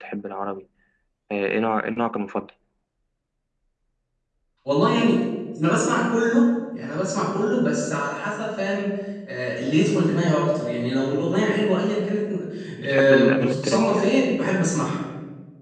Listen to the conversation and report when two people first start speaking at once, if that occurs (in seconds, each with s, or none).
12.8 s